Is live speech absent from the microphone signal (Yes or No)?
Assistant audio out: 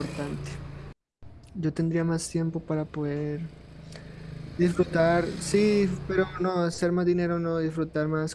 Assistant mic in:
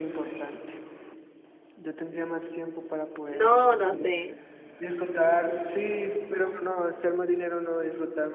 No